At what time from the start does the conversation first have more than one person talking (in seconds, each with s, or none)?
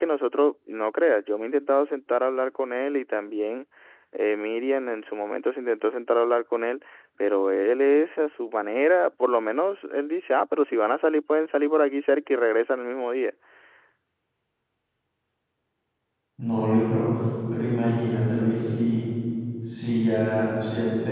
none